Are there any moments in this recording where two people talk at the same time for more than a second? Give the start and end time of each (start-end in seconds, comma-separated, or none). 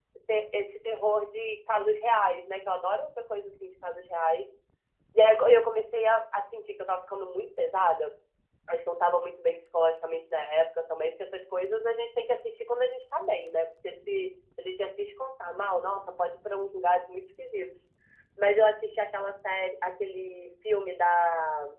none